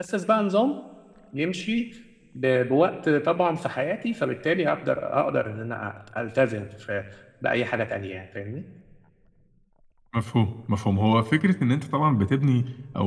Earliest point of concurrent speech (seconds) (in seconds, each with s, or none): none